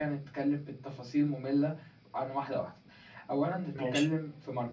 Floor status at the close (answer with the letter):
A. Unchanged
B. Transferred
A